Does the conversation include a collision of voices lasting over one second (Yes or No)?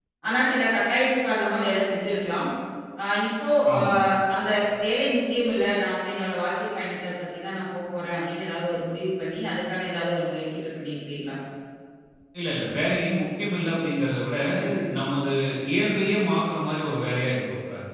No